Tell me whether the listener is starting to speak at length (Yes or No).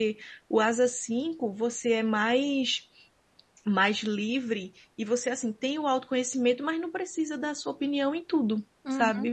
Yes